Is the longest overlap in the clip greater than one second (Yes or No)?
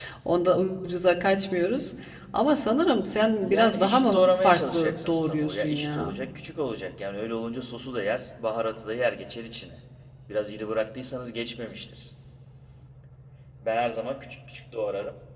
Yes